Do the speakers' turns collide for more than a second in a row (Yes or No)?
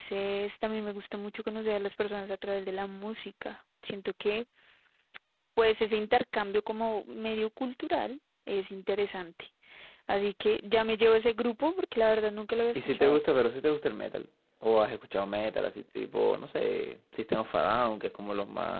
No